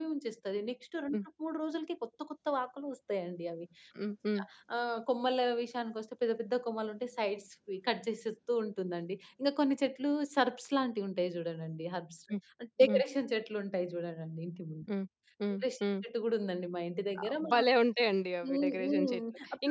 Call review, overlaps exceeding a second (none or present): present